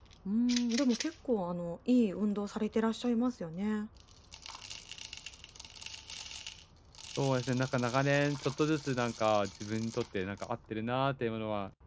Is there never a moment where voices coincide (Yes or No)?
Yes